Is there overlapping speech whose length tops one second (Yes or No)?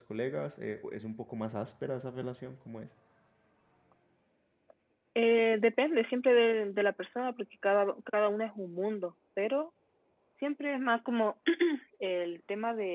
No